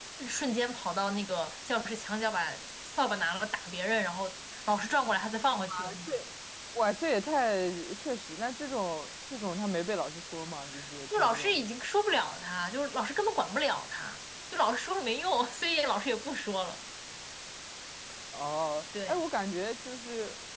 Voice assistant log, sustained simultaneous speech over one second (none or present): none